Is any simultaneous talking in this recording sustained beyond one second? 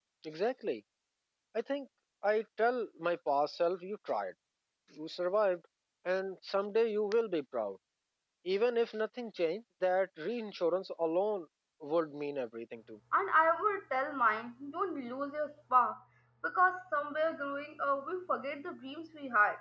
No

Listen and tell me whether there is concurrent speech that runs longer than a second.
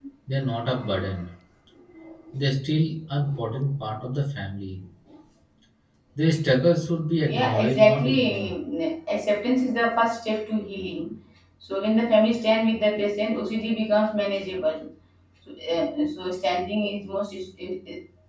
Yes, from 7.2 s

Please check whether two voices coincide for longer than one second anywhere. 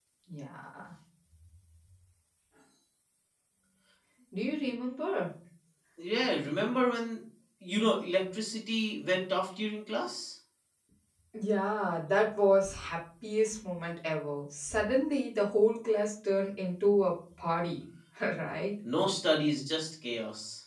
No

